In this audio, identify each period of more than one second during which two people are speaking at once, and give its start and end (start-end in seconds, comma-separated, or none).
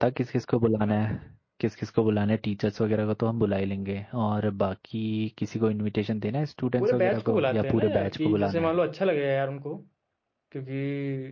6.8-8.7